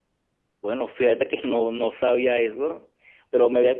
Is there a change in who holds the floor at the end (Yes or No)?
No